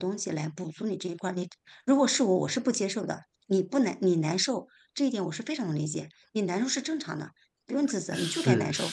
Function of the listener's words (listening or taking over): taking over